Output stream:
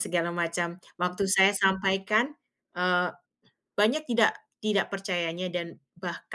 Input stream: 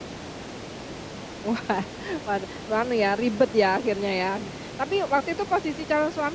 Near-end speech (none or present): present